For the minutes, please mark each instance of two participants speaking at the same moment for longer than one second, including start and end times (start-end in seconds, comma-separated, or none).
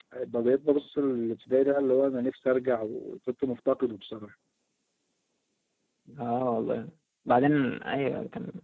none